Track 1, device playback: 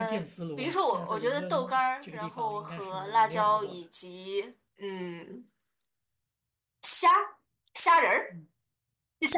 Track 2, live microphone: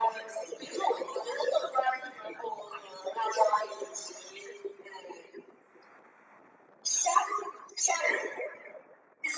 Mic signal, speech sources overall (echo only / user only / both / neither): echo only